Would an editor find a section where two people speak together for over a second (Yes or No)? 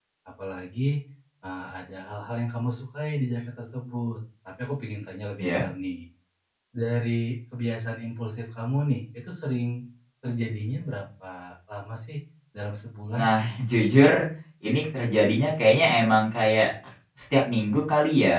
No